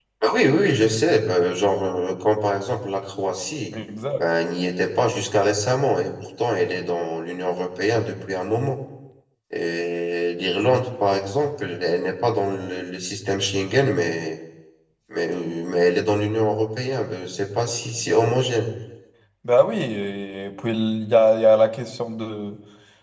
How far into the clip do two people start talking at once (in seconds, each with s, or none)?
none